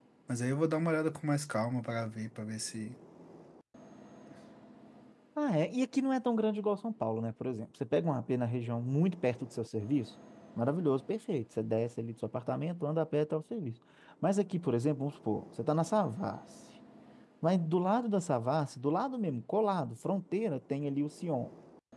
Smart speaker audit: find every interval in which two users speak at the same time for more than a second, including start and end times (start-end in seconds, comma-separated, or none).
none